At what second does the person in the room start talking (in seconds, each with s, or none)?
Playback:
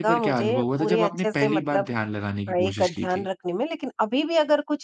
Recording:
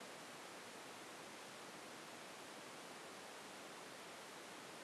none